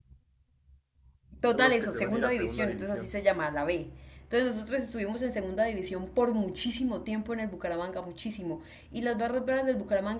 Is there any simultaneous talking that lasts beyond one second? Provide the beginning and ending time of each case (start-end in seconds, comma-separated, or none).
1.5-3.1